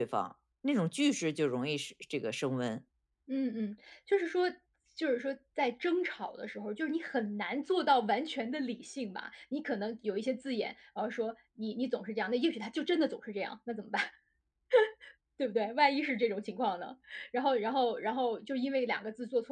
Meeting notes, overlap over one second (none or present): none